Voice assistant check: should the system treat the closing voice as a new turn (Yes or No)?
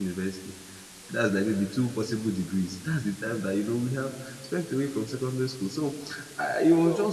No